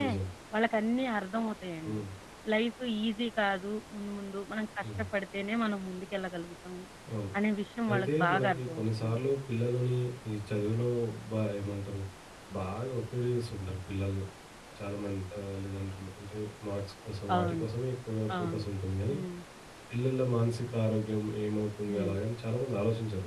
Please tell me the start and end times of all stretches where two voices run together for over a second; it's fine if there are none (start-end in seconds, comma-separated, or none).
7.9-9.2